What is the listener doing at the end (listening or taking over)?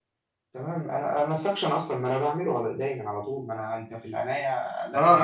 taking over